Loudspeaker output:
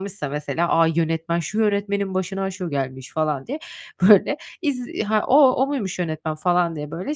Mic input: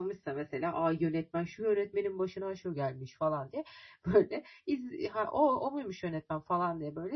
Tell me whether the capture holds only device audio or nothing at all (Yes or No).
Yes